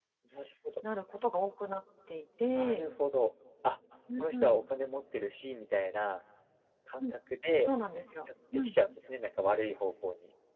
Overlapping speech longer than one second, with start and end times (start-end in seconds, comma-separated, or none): none